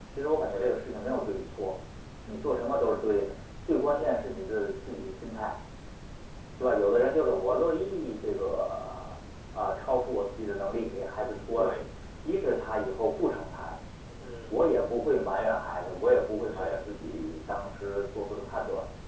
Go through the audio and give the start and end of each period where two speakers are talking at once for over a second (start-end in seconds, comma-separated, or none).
none